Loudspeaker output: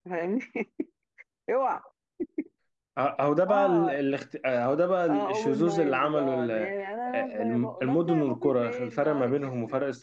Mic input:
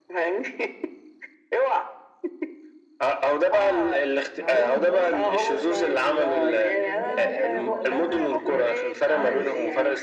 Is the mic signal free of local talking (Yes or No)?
No